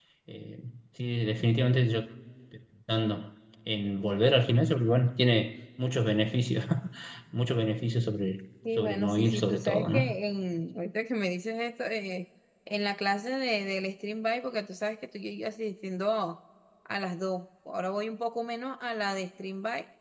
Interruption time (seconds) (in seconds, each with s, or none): 8.6 s